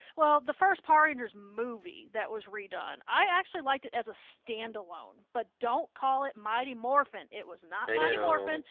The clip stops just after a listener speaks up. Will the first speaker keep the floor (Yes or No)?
Yes